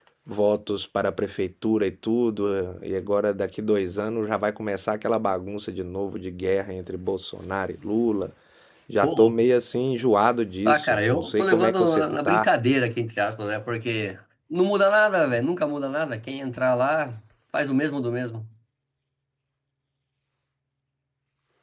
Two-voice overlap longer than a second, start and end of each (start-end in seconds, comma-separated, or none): 10.7-12.5